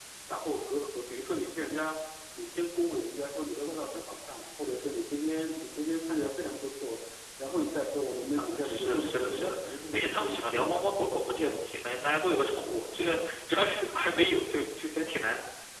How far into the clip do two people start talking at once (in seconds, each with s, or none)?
8.4 s